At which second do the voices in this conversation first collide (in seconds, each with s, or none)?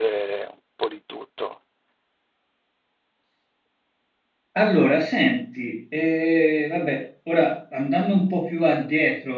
none